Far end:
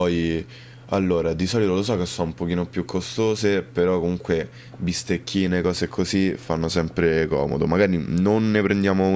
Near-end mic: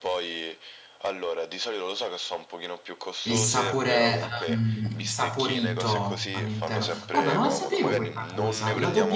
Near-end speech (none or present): present